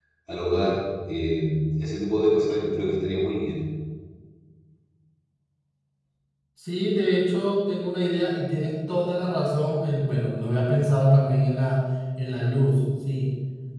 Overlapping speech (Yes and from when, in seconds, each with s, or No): No